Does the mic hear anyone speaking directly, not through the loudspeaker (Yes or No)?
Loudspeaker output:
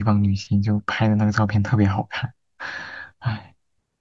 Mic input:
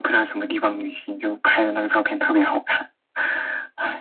No